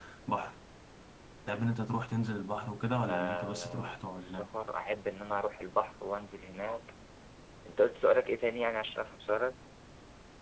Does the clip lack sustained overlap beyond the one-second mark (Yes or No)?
No